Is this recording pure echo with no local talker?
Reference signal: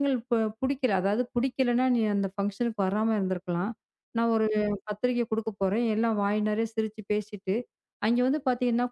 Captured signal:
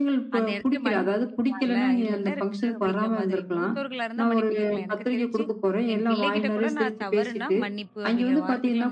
No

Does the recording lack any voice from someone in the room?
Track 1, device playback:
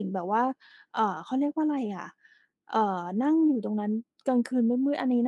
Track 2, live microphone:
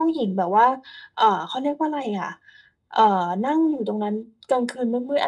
Yes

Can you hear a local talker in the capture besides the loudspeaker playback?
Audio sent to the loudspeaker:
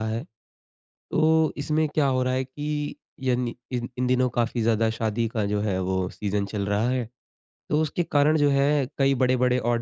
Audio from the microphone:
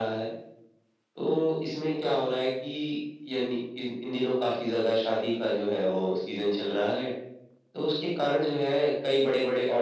No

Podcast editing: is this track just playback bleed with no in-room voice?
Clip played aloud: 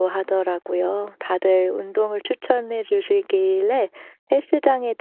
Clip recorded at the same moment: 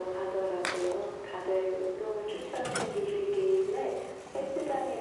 Yes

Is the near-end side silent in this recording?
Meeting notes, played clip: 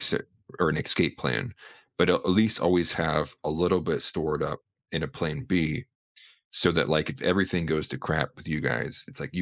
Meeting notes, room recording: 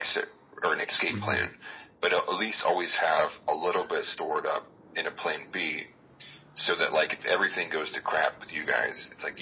No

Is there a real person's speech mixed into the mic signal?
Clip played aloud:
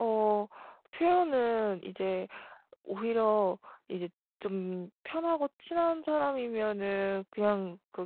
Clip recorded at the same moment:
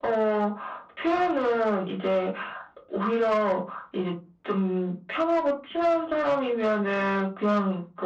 No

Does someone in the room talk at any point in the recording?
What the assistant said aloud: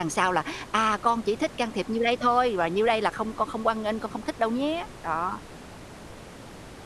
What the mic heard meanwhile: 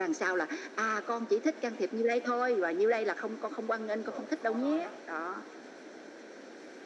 Yes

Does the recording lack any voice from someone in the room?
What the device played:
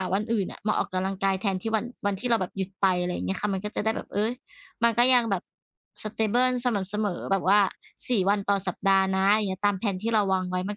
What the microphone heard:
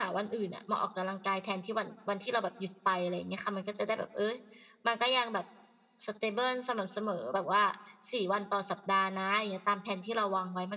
Yes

